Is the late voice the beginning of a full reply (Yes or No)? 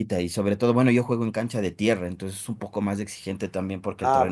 Yes